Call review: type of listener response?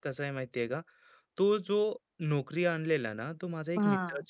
listening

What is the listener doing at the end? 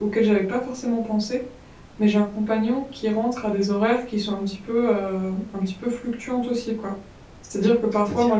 listening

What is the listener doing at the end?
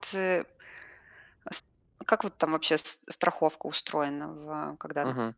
taking over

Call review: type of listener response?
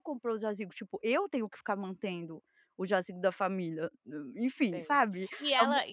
taking over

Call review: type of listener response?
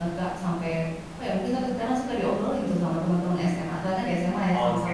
taking over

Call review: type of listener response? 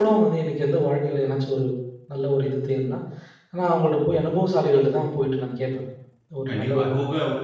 taking over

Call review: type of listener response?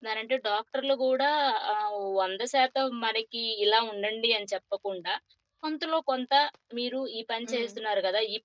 listening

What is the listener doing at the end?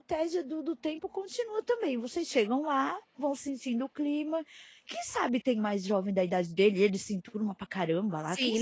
taking over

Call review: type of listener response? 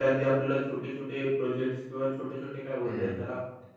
listening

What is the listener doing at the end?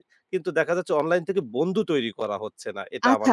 taking over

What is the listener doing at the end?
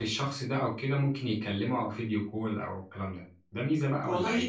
taking over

